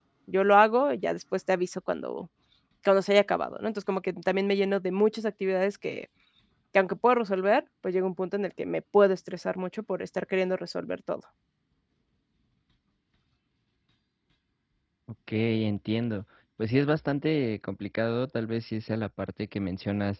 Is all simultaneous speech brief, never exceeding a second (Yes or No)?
Yes